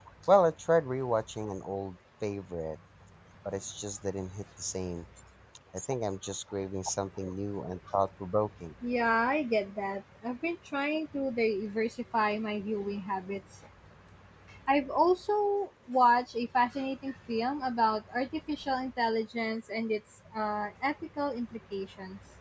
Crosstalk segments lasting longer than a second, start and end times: none

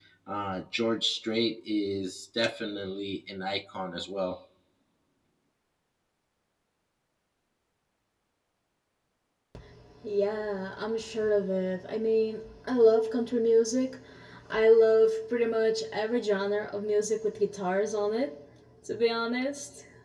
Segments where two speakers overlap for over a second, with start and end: none

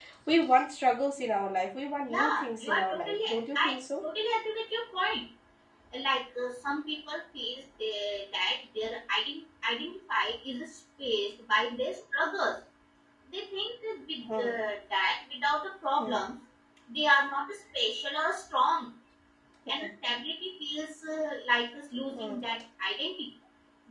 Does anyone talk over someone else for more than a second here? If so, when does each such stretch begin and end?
2.1-3.6

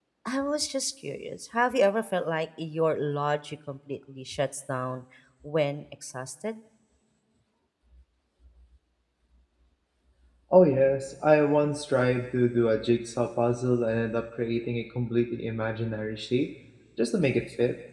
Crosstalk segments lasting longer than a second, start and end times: none

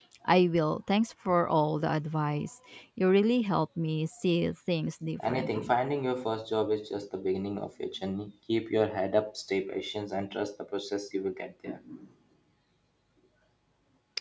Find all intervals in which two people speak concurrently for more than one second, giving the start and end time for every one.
none

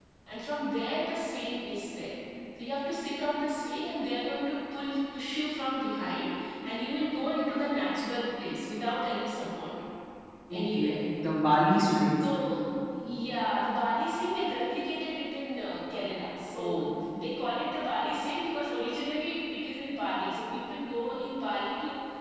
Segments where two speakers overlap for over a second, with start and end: none

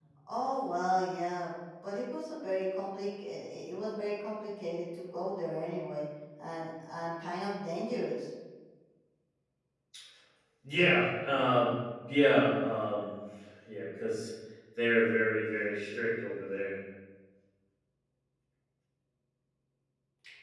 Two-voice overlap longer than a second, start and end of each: none

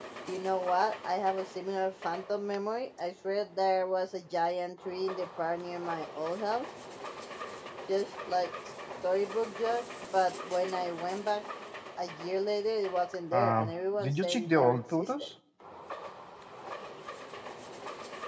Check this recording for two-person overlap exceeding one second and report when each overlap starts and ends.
13.3-15.3

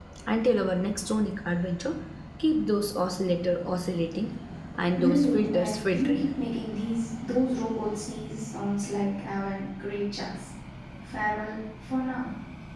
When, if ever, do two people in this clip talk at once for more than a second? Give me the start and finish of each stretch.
4.9-6.3

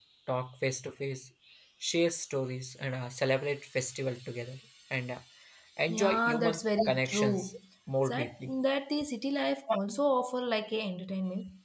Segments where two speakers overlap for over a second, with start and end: 5.9-7.6

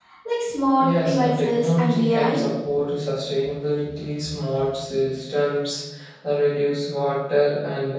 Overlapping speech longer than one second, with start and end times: 0.8-2.4

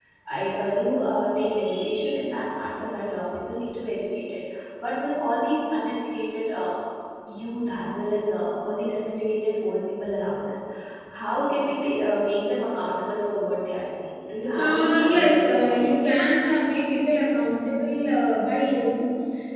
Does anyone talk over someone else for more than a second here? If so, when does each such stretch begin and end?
14.6-16.0

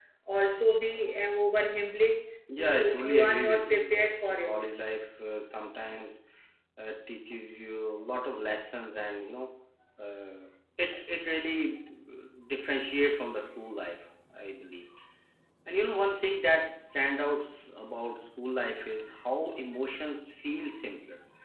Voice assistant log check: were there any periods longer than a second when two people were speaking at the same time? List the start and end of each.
2.6-4.6

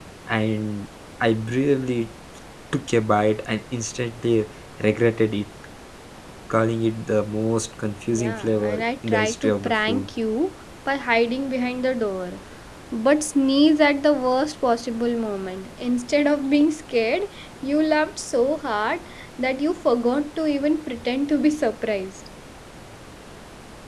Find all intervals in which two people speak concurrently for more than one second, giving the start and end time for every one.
8.2-10.0

